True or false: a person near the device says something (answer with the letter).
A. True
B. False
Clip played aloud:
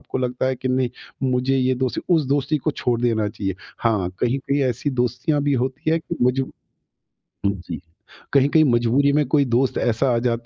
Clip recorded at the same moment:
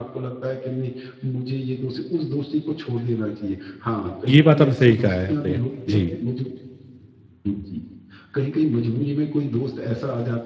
A